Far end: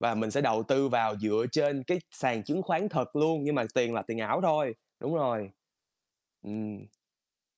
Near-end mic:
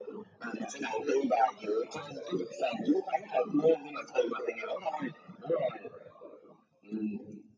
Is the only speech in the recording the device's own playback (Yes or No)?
Yes